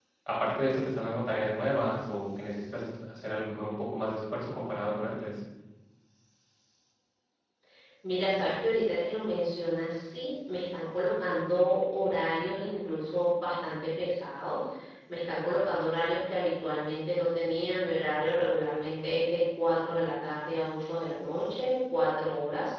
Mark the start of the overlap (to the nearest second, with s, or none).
none